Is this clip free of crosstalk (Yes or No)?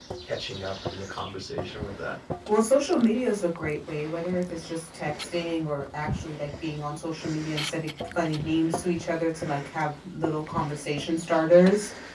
Yes